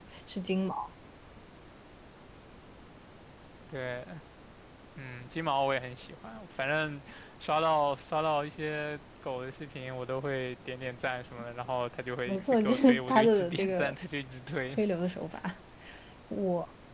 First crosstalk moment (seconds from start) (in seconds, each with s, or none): 12.3 s